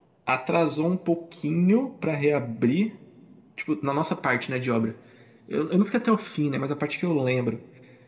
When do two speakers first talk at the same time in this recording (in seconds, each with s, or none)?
none